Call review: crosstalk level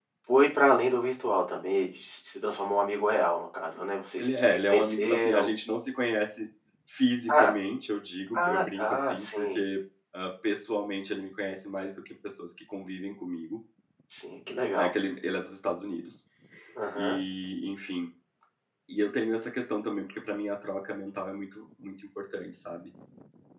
present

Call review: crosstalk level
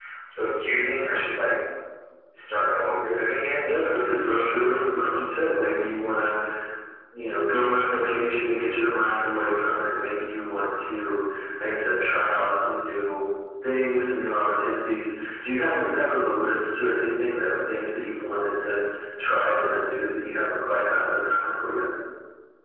present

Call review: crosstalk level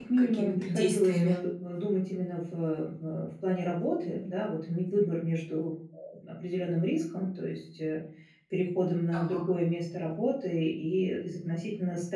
present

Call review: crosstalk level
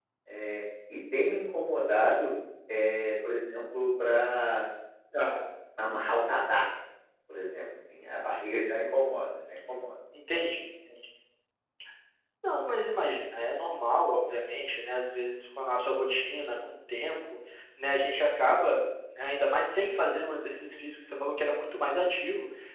none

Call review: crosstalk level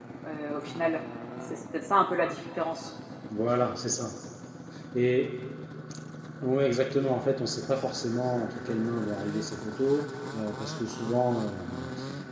none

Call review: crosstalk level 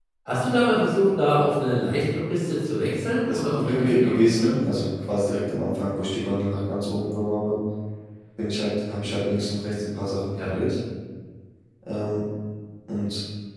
present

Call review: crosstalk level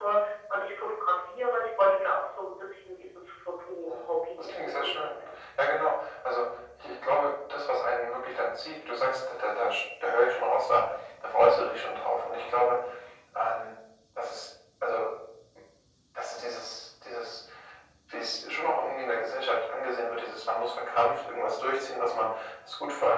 present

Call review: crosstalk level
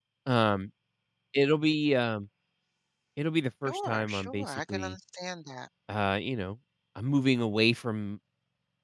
present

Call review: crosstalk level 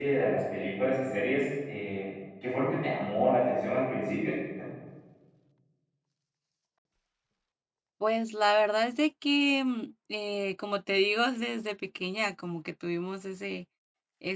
none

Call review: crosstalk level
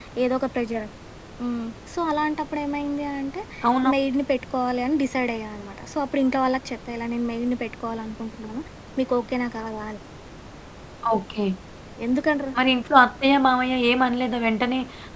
none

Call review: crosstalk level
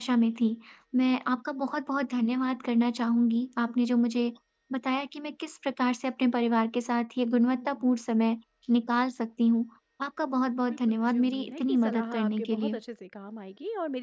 present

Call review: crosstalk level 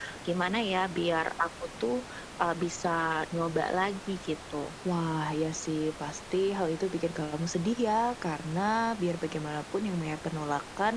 none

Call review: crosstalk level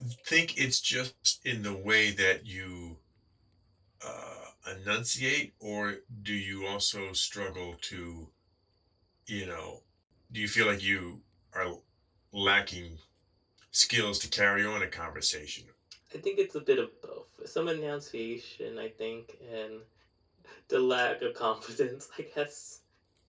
none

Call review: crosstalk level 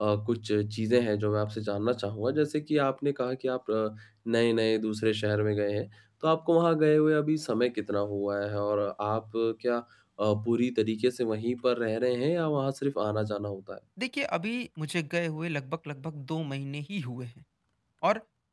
none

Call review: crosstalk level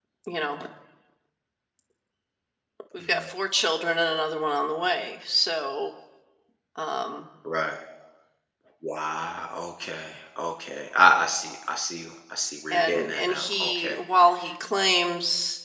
present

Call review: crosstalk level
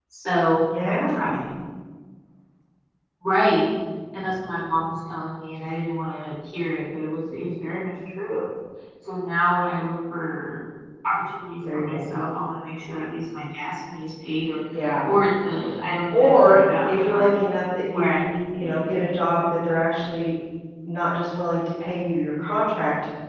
present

